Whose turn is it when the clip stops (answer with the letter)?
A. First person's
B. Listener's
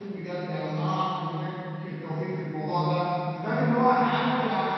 A